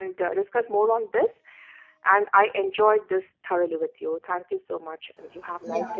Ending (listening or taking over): taking over